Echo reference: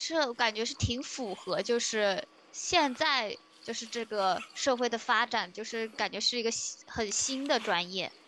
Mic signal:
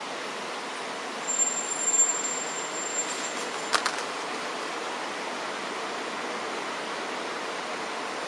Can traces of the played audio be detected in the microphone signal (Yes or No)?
No